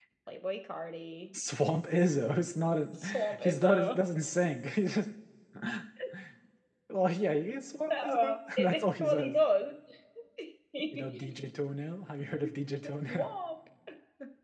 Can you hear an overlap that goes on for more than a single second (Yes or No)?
Yes